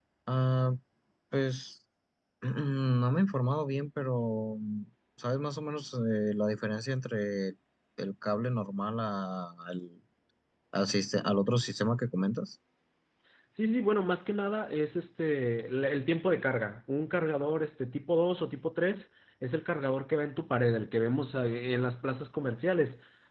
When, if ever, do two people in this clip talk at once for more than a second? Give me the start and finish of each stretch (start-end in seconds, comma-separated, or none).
none